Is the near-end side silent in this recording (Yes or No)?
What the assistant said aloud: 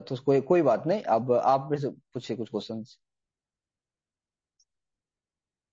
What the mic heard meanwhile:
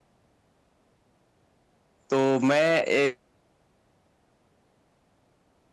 No